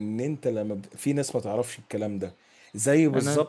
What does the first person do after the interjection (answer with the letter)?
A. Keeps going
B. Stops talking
A